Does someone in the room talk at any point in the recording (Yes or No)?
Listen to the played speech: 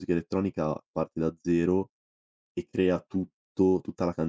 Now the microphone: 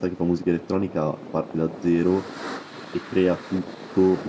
No